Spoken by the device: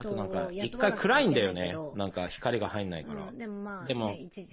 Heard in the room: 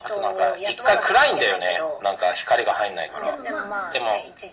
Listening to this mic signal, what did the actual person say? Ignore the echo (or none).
でもまあ、